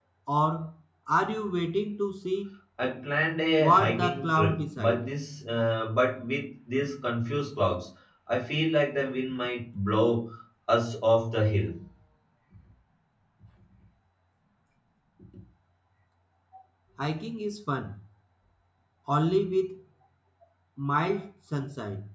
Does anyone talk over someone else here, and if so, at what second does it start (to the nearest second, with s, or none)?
4 s